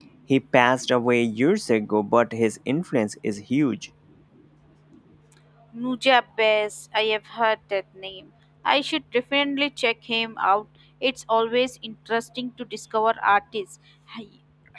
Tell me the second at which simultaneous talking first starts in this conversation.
none

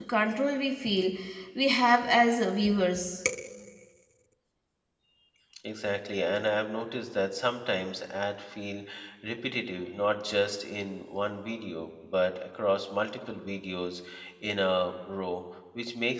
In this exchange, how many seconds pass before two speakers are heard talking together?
none

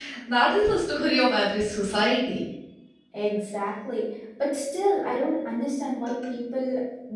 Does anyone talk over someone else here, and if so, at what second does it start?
none

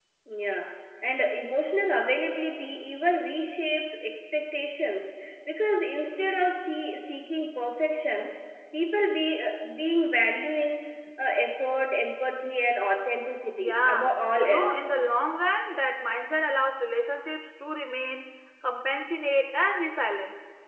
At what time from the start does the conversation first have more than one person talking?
13.6 s

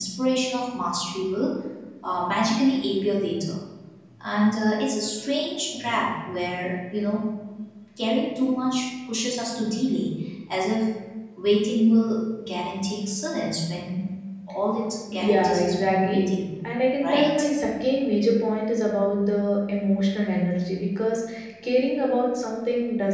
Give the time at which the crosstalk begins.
15.1 s

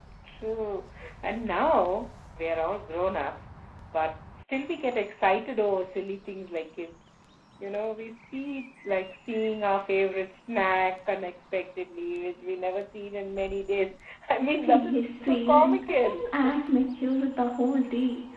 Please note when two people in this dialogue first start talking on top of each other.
14.6 s

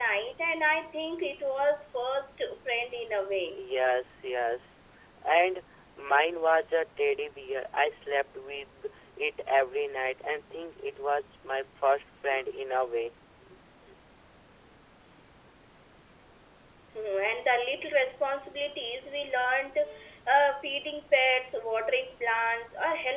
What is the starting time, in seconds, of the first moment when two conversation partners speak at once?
none

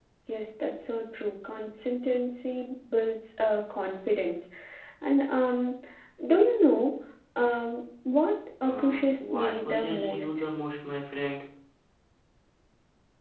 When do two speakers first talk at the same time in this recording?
8.6 s

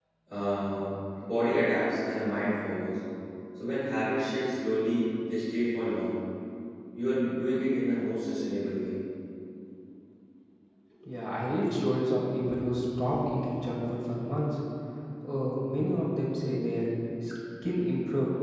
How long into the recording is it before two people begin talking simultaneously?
none

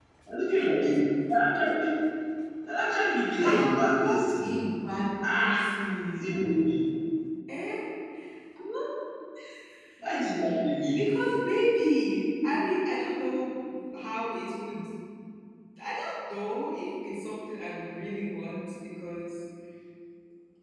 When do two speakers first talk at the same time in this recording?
3.4 s

